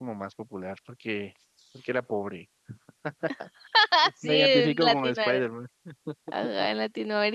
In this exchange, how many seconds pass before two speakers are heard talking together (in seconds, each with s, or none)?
4.2 s